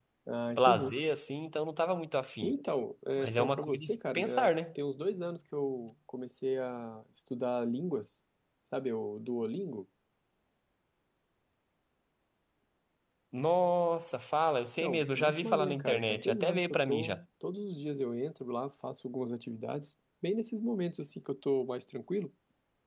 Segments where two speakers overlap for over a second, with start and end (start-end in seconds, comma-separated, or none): 3.2-4.5, 14.8-17.2